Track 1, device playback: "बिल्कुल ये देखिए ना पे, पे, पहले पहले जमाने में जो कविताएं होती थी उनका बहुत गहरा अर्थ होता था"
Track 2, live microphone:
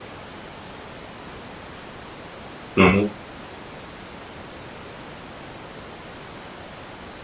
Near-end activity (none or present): present